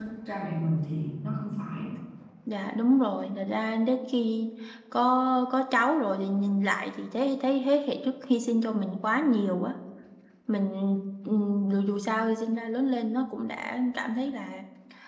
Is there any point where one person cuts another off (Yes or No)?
No